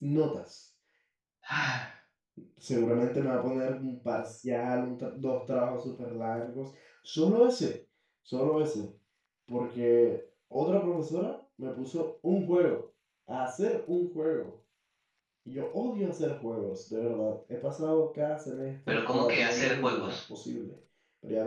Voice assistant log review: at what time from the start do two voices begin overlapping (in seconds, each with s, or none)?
18.9 s